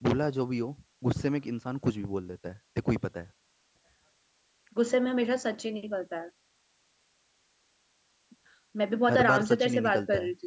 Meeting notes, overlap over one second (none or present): present